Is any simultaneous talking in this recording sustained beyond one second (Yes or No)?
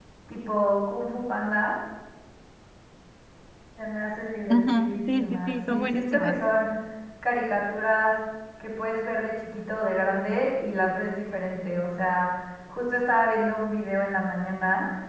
Yes